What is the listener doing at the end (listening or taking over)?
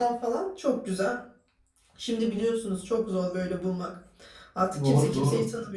listening